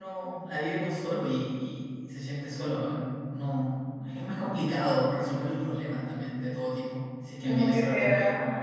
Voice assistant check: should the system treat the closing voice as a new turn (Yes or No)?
Yes